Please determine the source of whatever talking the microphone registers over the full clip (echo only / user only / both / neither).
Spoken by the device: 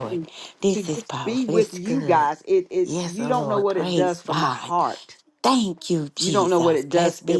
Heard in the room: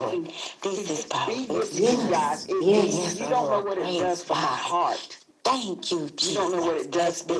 both